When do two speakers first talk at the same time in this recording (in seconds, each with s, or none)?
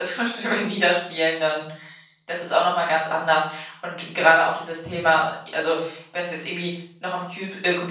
none